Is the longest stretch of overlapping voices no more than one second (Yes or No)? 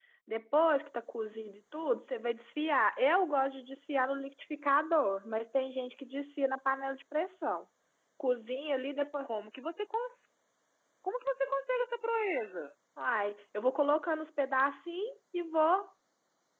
Yes